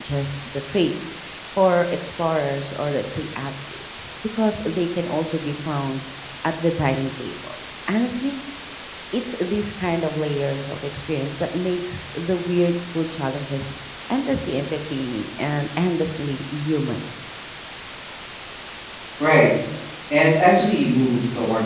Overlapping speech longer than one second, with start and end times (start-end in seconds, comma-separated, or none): none